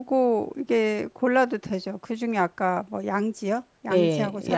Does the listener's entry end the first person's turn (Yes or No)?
Yes